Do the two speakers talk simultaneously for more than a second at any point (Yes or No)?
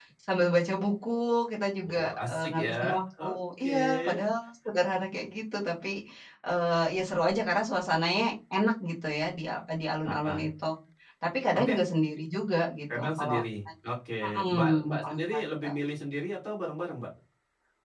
Yes